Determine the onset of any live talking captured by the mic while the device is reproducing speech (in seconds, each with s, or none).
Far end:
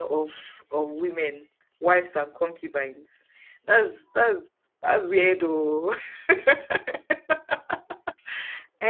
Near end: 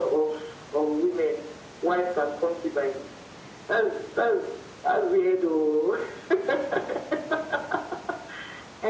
none